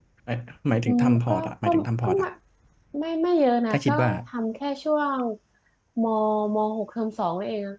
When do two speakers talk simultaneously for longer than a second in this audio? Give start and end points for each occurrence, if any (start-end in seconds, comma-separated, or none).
0.8-2.2